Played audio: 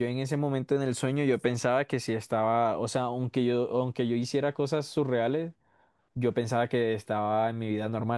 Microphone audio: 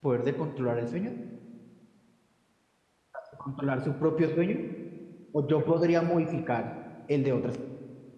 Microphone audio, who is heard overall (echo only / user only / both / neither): user only